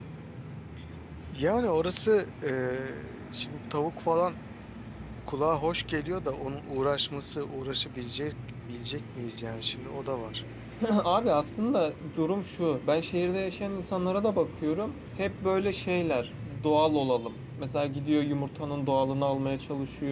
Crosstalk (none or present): none